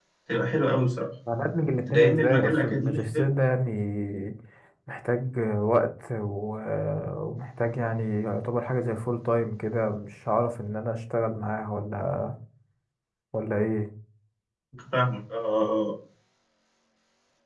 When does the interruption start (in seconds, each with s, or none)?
1.9 s